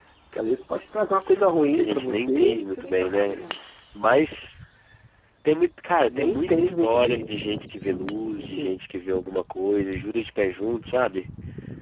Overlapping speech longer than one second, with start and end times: 1.7-3.4, 5.9-7.3

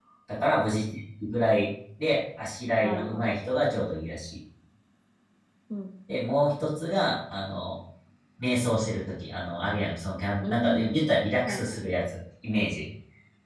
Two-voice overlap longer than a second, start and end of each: none

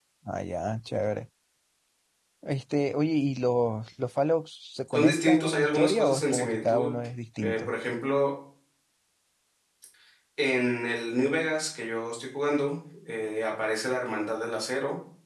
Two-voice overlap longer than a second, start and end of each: 4.9-6.9

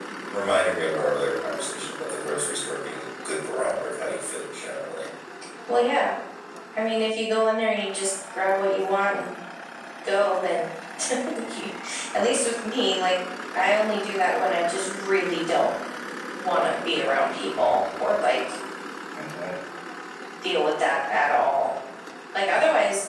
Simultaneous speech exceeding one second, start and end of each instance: none

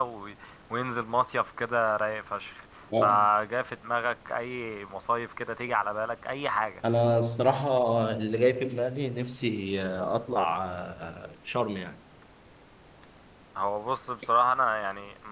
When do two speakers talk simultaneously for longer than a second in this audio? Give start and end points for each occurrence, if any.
none

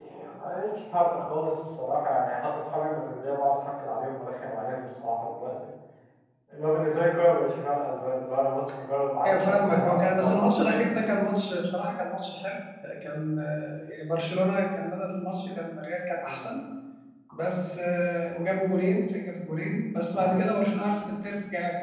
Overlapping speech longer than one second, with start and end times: 9.2-11.0

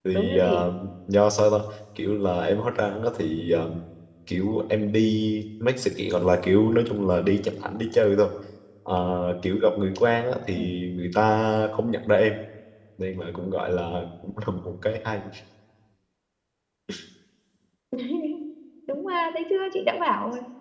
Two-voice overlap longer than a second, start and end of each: none

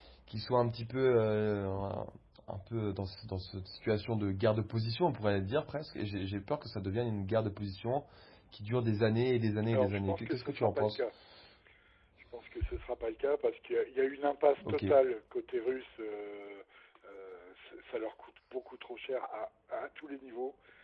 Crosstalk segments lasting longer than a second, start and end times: 9.7-11.0

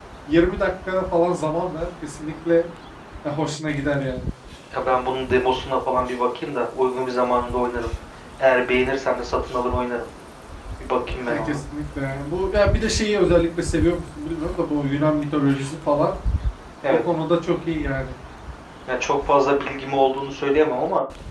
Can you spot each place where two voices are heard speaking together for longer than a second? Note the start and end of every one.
none

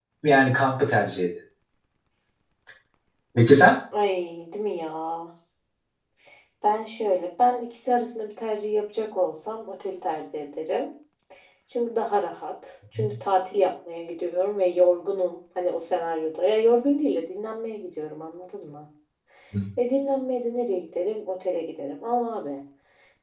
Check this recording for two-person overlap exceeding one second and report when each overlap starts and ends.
none

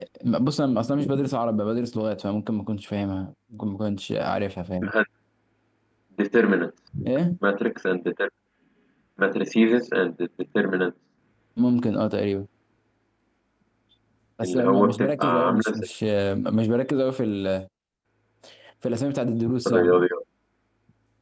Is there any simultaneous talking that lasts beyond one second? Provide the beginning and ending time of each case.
14.4-15.9

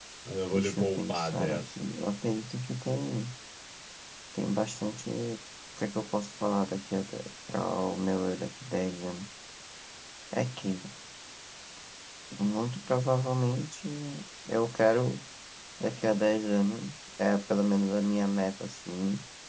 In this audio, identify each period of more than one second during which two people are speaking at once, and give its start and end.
0.5-1.9

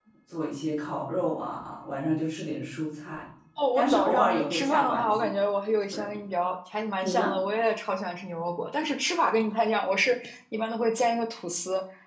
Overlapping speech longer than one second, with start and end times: 3.7-5.3

